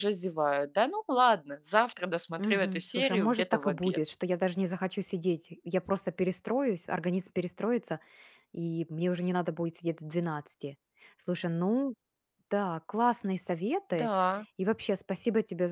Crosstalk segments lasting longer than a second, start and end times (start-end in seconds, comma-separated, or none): 2.4-4.0